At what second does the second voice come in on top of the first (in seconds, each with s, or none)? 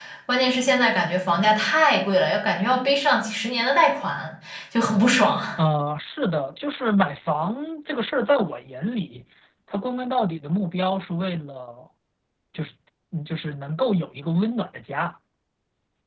none